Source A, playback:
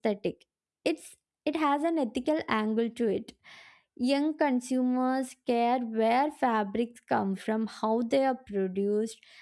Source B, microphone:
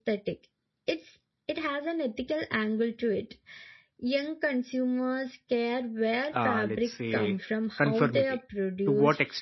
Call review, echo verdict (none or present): present